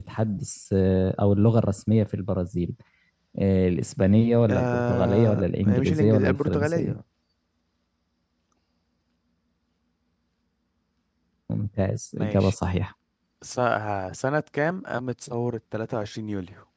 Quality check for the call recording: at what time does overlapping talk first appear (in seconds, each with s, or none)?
4.5 s